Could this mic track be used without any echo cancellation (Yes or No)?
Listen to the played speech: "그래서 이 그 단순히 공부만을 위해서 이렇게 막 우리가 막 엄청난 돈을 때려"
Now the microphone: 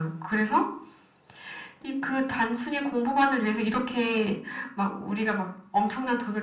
No